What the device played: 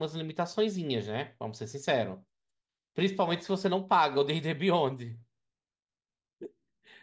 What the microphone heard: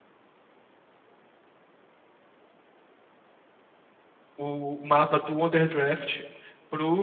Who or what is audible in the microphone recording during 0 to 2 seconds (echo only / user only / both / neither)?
neither